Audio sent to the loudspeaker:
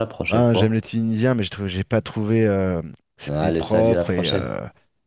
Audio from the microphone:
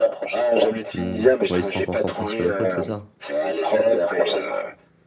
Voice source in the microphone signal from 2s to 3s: both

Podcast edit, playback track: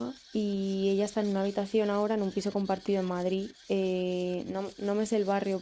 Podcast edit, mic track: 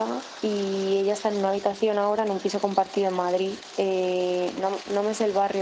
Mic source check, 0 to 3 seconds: echo only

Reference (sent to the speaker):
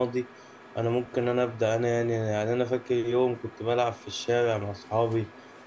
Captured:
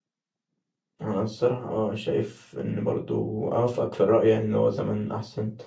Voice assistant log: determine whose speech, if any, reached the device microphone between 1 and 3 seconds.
user only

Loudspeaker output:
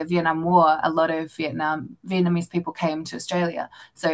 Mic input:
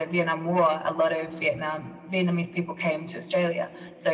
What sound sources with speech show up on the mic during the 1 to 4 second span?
echo only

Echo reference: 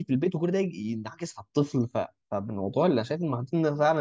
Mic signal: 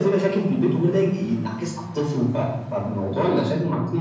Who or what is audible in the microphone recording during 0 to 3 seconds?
echo only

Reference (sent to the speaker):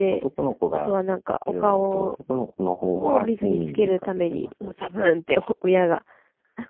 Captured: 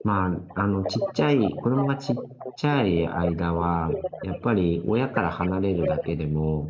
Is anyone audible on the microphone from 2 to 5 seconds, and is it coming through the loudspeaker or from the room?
both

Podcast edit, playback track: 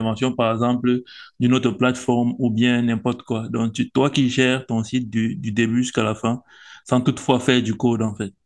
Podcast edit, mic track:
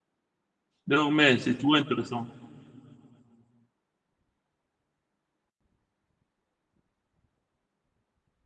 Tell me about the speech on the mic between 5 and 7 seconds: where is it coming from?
neither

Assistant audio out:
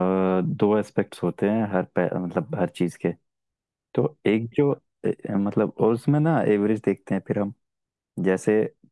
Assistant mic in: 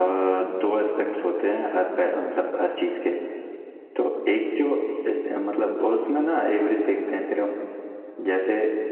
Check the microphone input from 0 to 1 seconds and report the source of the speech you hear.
echo only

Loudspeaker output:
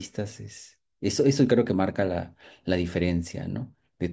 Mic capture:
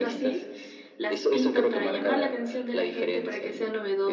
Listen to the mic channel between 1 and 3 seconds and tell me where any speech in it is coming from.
both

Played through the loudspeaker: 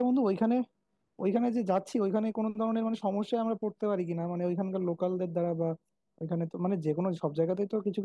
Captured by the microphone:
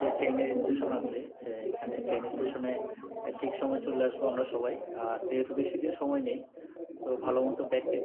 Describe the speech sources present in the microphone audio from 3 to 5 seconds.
both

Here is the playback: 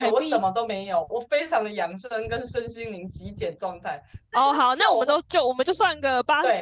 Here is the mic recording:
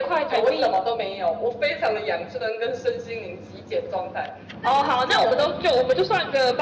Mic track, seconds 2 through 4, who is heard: echo only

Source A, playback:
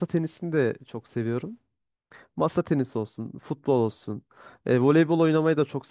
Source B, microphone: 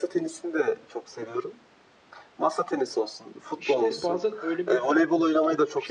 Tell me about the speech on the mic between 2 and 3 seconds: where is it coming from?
echo only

